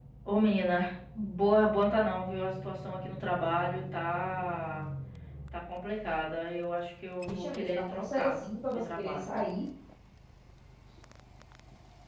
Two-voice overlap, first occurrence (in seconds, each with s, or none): 7.2 s